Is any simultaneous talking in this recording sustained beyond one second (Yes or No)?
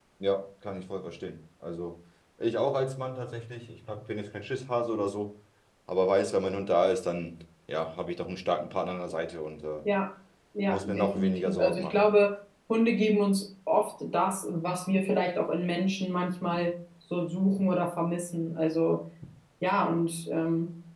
Yes